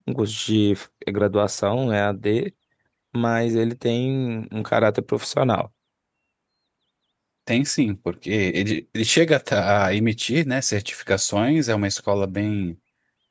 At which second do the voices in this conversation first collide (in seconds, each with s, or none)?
none